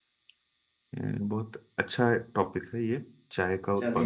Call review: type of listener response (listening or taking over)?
taking over